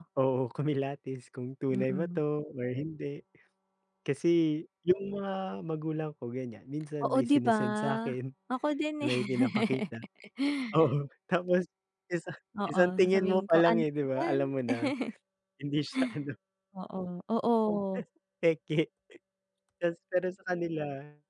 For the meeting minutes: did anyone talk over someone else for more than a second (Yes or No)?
Yes